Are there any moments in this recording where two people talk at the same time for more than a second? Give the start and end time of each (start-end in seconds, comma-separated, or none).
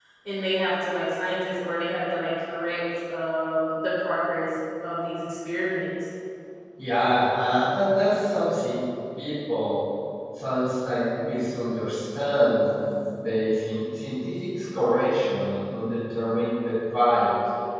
none